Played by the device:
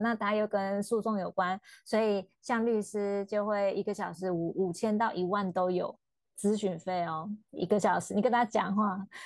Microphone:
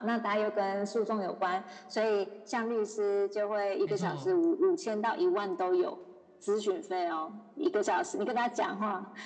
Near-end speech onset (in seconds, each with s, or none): 3.8 s